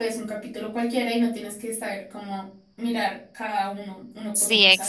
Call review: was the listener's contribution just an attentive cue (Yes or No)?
No